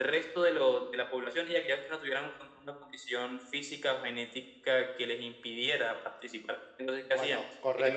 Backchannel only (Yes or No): No